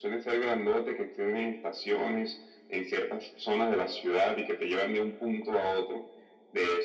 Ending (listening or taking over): taking over